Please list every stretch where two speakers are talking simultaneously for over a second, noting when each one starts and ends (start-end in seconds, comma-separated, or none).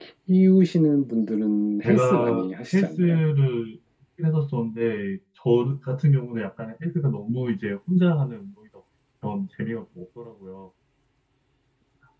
1.8-3.2